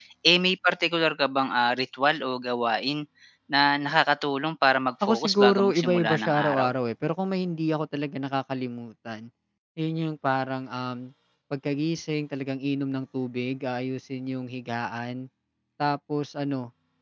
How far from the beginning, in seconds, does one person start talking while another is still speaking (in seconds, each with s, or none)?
5.0 s